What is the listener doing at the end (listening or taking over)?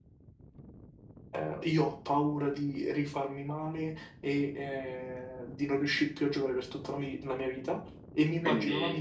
listening